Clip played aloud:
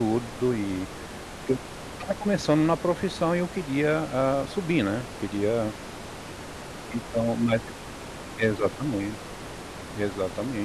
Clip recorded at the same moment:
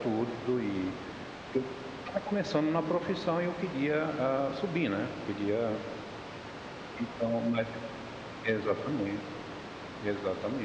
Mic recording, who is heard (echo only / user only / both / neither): echo only